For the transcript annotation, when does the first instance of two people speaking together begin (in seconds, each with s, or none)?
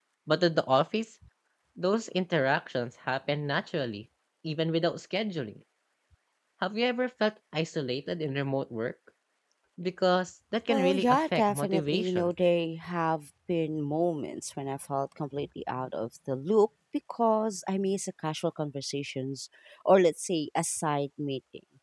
10.7 s